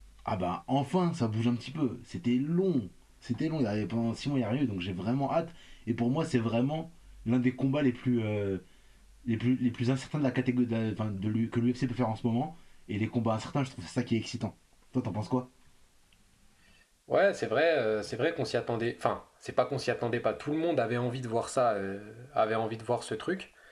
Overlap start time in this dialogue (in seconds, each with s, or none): none